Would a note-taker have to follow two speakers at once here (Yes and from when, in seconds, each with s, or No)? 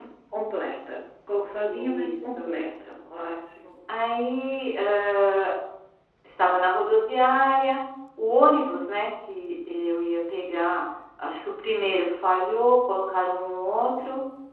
Yes, from 1.7 s